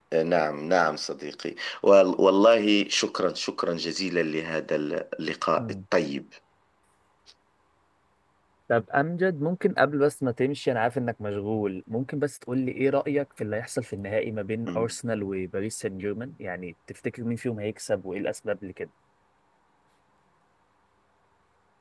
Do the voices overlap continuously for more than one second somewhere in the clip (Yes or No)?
No